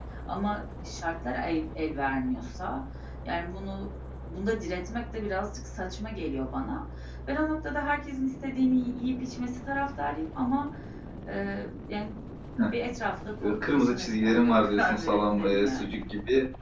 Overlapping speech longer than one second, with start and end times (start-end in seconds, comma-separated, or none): 13.4-16.0